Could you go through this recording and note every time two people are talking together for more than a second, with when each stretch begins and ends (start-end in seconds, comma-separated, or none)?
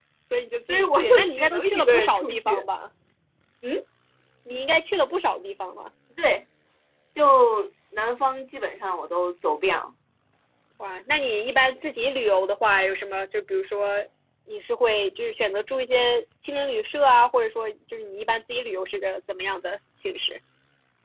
0.7-2.6